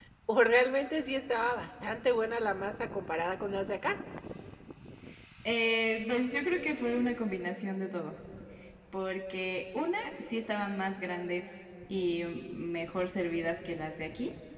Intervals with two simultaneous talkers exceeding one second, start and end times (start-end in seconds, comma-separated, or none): none